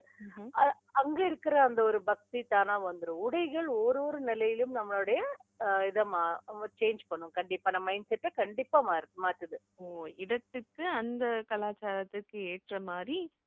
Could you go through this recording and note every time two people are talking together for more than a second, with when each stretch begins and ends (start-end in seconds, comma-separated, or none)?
none